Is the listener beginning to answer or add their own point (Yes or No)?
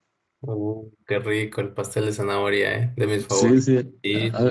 Yes